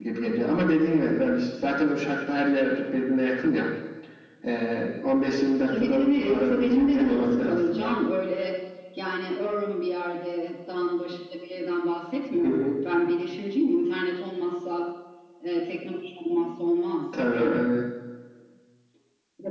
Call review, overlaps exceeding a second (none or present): present